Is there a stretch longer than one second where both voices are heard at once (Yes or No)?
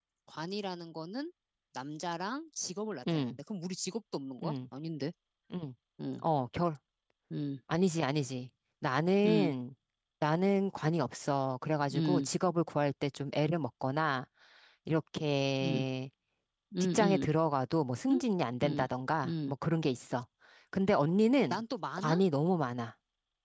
No